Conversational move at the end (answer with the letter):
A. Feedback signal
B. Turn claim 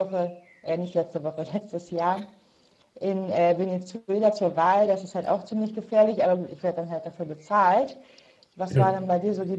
A